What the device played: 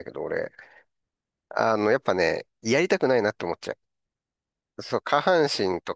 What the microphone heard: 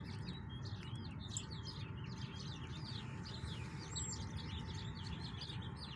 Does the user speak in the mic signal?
No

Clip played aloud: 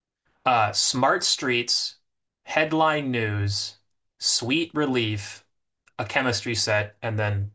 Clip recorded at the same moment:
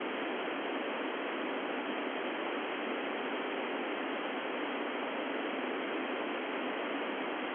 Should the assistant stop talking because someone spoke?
No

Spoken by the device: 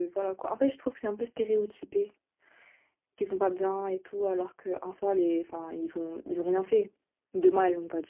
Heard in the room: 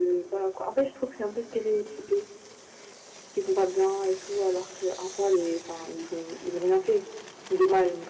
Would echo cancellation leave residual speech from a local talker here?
No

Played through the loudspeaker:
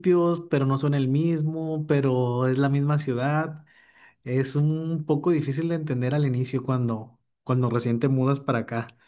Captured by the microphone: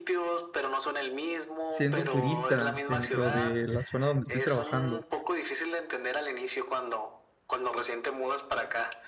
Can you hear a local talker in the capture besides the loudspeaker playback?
Yes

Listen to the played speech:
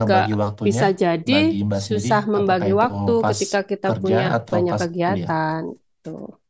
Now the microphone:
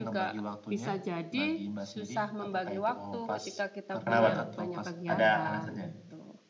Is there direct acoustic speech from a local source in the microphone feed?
Yes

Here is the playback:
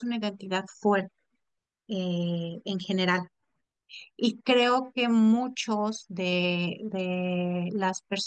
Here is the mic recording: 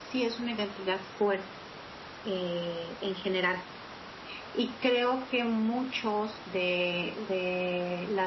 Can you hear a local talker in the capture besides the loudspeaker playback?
No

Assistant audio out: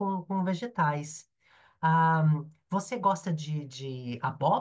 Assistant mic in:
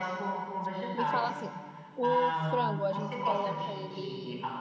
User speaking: Yes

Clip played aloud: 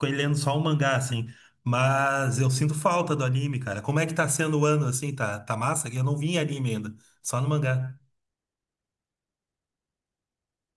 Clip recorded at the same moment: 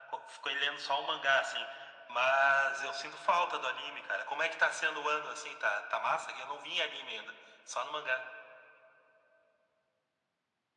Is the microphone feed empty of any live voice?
Yes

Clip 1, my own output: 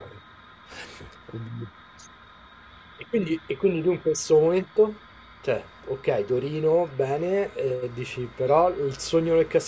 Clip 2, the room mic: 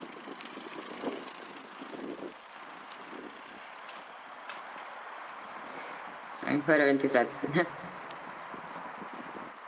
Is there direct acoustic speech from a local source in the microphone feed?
Yes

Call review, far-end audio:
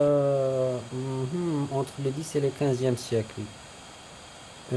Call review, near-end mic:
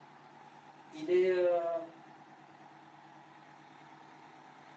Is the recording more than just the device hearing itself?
Yes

